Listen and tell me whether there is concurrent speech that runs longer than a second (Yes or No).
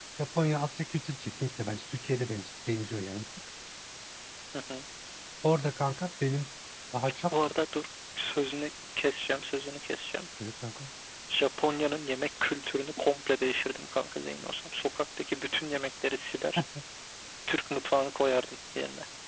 No